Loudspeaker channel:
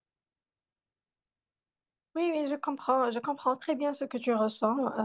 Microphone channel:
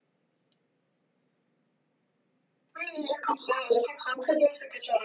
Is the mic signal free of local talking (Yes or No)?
Yes